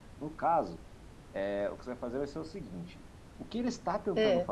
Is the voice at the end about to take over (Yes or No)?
No